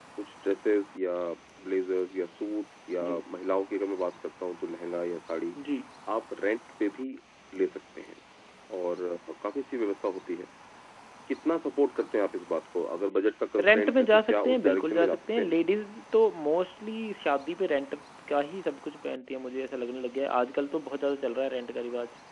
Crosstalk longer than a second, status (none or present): present